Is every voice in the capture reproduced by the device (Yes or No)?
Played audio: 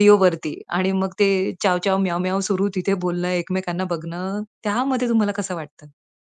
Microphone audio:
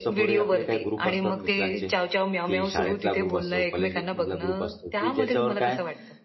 No